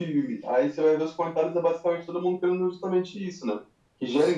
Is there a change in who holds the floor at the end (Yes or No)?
No